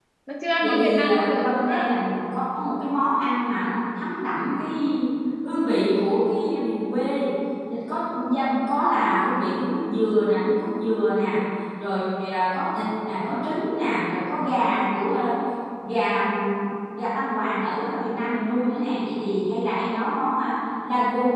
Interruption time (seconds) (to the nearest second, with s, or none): 1 s